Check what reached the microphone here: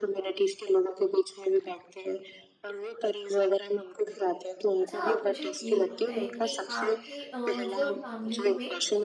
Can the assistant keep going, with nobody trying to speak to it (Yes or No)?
No